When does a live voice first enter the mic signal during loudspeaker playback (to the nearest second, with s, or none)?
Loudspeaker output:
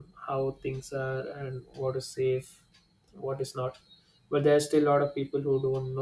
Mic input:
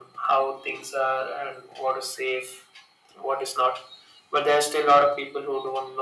none